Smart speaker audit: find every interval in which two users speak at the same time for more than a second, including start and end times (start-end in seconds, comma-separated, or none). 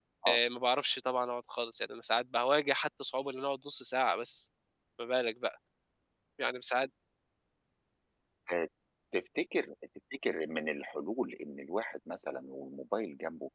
none